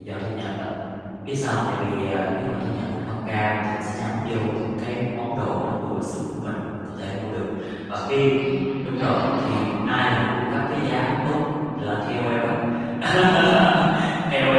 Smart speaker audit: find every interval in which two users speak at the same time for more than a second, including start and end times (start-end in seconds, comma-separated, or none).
8.8-10.1